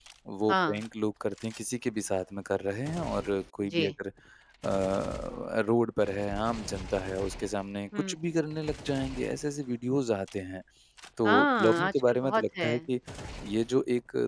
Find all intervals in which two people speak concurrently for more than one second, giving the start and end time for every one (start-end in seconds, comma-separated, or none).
11.2-12.7